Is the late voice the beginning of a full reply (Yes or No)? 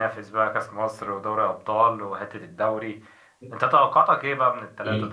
No